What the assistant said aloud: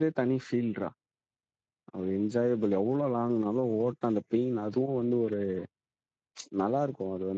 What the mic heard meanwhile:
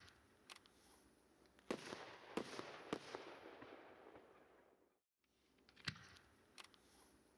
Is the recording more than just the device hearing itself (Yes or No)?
No